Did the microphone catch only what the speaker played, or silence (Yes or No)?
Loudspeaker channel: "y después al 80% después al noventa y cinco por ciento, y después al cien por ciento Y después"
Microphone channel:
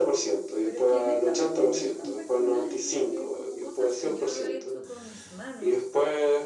No